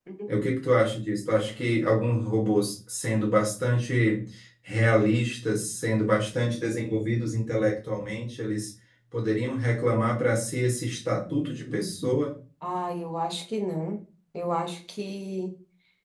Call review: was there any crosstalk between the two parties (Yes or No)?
No